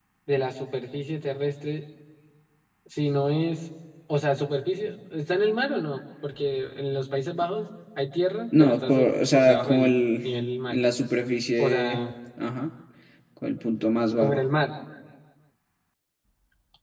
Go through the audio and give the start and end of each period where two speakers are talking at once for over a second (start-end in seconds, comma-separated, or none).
8.6-10.0